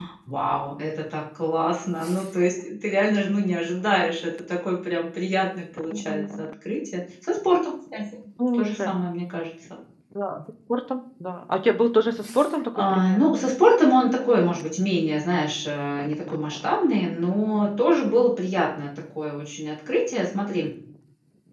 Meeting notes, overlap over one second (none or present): none